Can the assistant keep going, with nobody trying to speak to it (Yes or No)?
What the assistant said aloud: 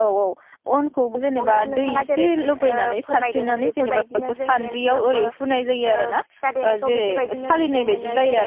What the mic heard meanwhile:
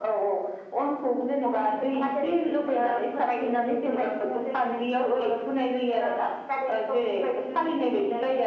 Yes